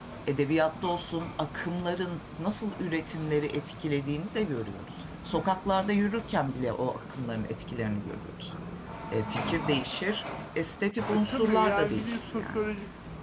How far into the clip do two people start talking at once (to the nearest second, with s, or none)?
11 s